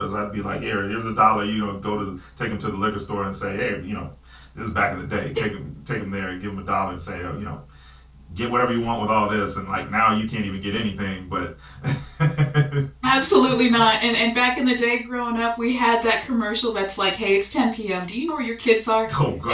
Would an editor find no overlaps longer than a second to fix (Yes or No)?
Yes